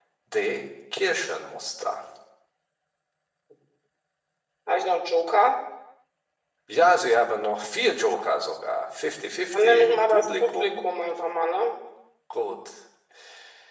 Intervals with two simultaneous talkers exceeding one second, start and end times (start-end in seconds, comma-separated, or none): 9.5-10.8